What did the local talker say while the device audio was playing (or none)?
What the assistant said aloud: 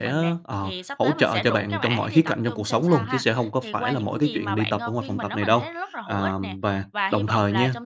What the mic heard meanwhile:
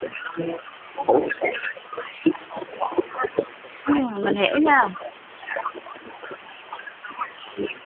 Ừm, mình hiểu nha.